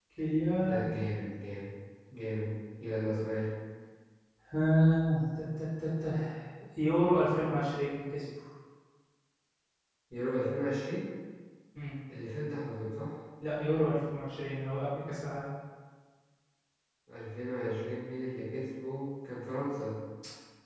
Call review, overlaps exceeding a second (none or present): none